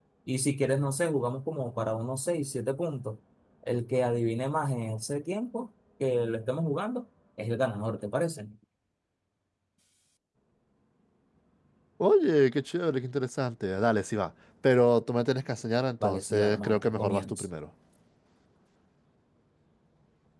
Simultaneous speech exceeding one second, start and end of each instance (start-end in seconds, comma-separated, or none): 16.0-17.5